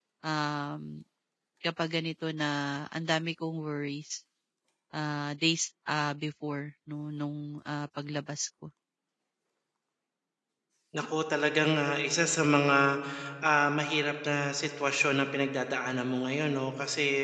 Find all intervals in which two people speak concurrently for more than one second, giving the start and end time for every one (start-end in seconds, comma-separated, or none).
none